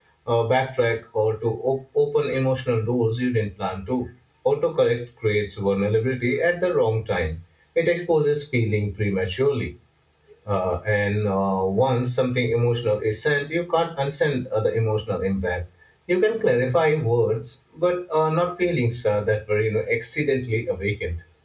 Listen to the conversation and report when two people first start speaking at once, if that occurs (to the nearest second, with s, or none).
none